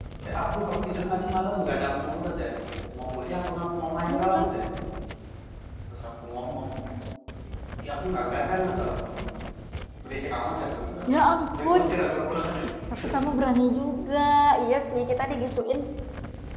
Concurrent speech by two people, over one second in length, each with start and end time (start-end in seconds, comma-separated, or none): none